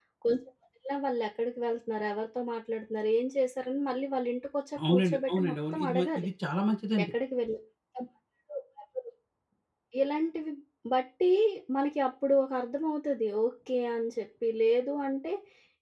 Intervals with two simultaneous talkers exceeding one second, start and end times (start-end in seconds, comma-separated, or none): 4.9-6.3